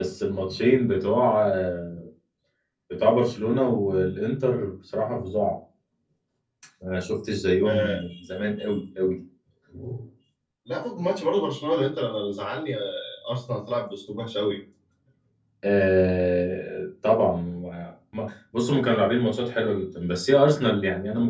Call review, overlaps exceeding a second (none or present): none